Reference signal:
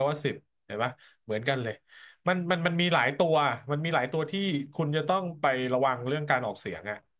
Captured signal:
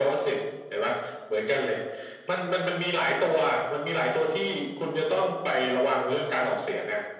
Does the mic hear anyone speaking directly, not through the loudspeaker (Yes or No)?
No